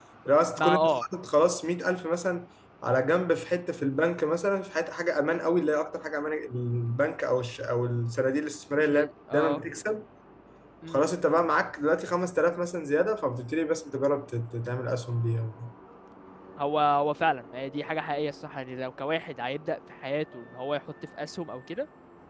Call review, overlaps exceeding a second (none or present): none